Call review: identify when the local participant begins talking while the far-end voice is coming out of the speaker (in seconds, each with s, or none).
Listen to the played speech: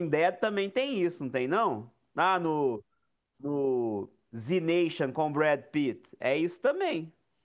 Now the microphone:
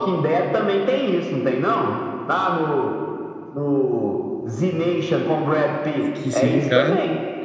6.1 s